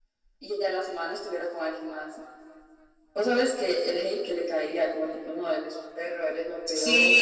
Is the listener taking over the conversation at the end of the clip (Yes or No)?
Yes